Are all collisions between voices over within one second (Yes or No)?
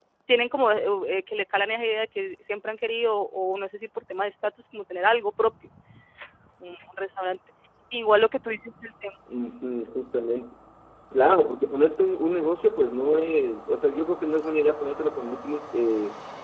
Yes